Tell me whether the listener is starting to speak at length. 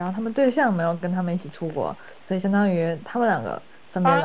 Yes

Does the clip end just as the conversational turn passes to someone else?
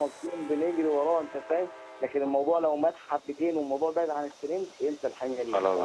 No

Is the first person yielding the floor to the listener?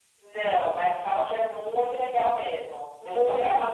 Yes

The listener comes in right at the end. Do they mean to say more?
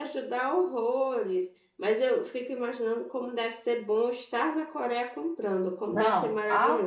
Yes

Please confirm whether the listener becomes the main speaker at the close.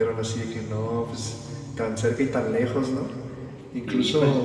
Yes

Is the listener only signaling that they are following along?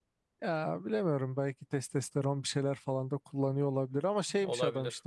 Yes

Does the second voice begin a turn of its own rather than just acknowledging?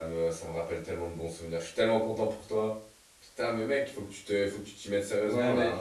Yes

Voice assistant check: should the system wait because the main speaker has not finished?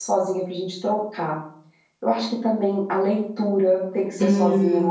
No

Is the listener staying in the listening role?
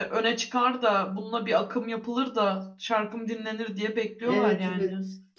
No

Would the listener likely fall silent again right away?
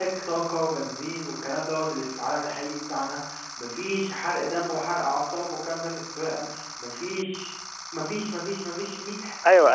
No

